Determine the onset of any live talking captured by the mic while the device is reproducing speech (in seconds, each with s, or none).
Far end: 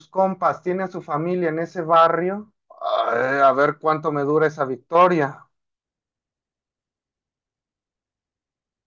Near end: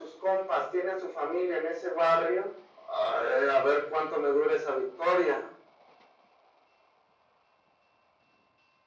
none